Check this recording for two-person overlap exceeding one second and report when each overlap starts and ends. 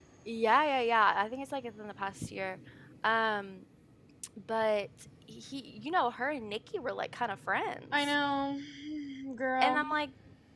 none

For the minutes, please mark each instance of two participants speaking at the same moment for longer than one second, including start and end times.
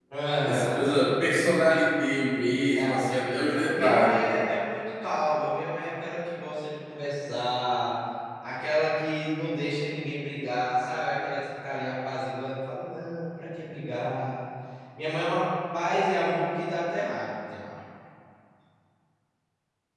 2.7-4.4

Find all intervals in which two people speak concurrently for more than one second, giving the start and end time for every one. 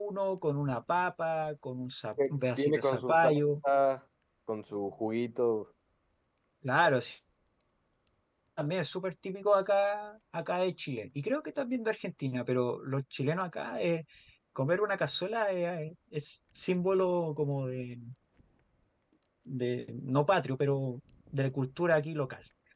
2.2-3.5

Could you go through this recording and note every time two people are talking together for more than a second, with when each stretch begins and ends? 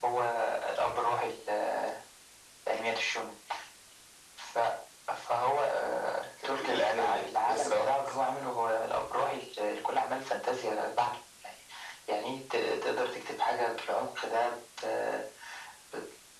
6.6-7.8

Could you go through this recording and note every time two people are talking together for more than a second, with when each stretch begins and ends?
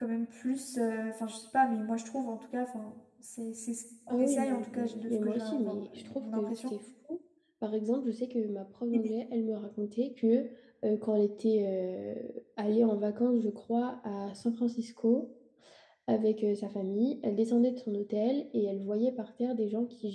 4.1-6.7

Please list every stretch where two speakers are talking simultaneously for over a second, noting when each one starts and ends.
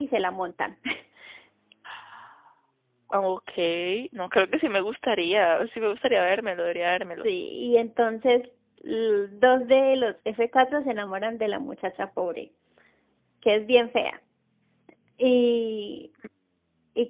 none

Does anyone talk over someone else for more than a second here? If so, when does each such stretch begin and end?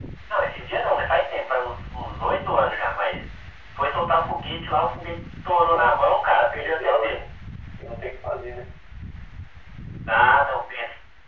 5.7-7.2

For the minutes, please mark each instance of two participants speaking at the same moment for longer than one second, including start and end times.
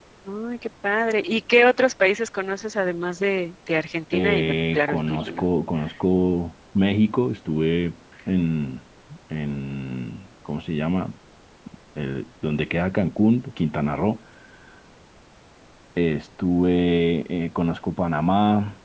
4.1-5.4

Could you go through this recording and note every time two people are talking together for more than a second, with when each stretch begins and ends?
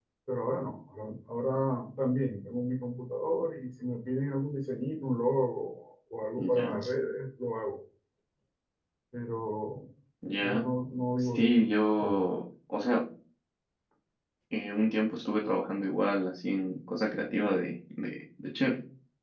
none

